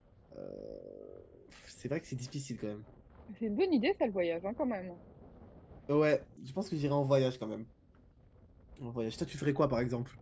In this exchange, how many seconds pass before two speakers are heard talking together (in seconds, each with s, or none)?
none